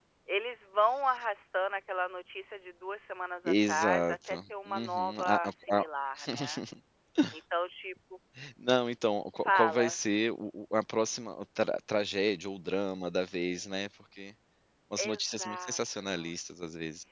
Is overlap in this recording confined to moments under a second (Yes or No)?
No